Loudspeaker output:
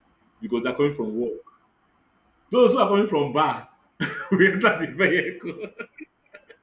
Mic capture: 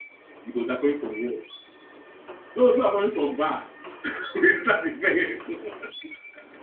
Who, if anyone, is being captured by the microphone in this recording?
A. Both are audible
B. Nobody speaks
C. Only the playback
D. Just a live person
C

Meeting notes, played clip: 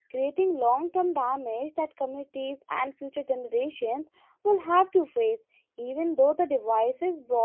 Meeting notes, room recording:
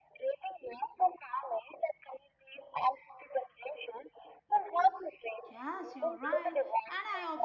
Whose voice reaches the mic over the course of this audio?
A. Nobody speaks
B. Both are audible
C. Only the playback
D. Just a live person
B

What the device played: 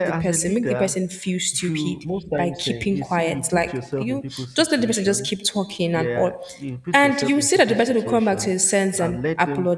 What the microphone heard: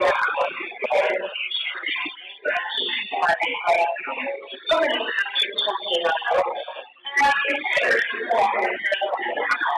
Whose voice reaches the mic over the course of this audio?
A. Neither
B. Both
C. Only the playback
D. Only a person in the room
C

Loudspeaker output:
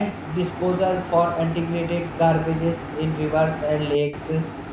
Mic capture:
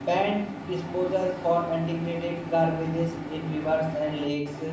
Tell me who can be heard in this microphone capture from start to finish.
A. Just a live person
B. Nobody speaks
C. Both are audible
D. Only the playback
D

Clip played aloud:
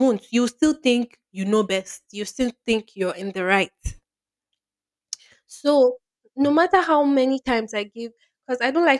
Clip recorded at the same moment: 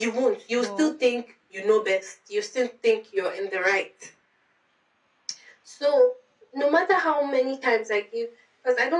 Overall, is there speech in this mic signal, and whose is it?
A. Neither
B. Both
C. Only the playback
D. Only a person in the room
B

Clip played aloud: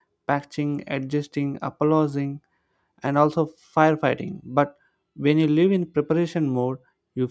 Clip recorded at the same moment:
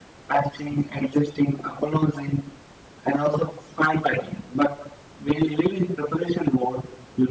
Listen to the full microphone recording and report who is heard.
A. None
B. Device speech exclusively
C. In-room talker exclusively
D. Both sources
B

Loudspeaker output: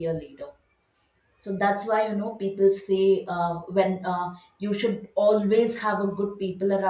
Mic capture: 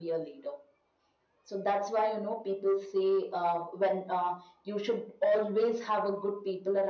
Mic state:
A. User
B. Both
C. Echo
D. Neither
C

